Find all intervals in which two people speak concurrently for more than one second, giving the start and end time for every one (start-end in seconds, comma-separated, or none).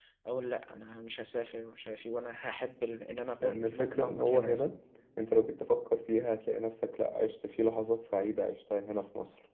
3.4-4.7